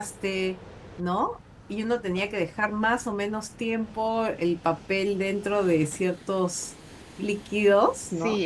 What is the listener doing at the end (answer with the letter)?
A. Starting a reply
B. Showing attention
A